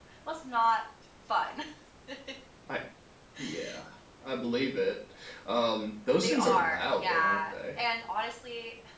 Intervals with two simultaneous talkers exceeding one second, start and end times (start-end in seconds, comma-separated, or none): 6.2-7.5